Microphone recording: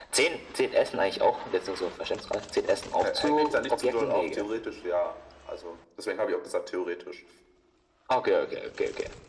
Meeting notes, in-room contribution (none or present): none